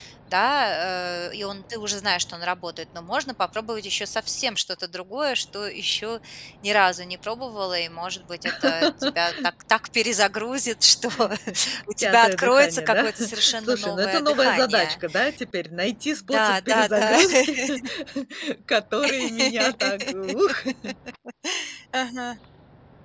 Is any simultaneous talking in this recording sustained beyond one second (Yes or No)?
Yes